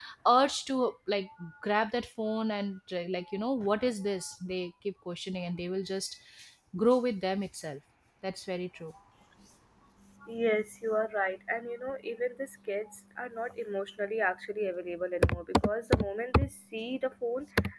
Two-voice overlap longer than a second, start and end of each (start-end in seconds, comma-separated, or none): none